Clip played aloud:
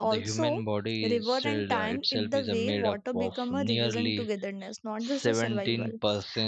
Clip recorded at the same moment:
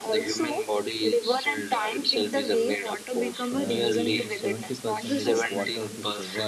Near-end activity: present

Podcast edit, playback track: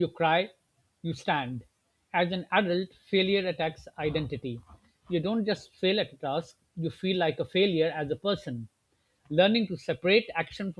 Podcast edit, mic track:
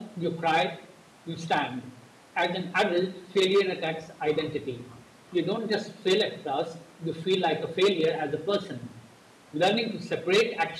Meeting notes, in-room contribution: none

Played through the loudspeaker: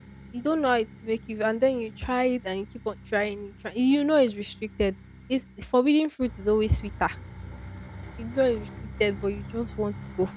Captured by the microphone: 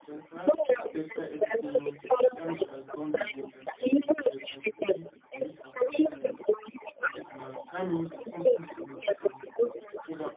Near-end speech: present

